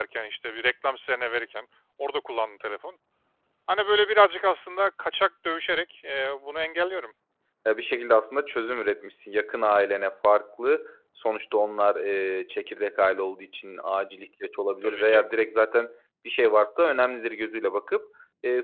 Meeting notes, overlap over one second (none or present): none